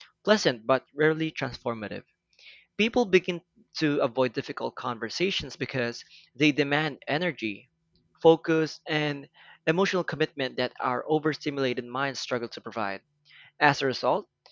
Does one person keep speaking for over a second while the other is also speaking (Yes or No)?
No